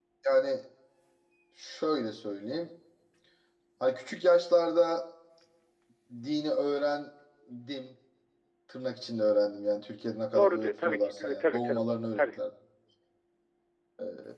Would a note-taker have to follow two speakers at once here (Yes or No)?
Yes